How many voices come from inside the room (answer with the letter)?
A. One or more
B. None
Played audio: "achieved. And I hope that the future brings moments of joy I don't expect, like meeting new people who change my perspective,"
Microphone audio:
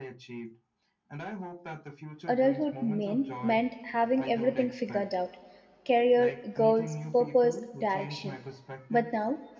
A